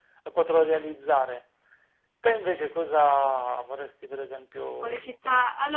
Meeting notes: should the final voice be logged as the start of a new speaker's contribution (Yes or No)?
Yes